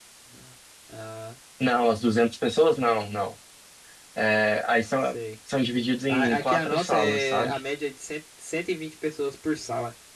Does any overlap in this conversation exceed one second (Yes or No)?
Yes